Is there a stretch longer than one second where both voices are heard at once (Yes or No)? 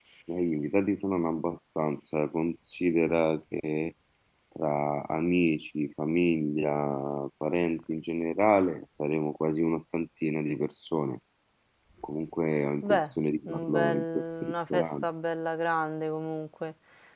Yes